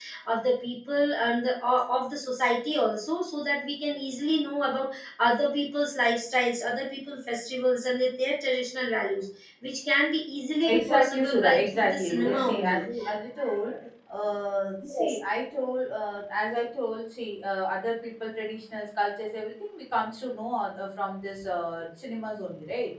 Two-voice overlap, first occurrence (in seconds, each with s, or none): 10.7 s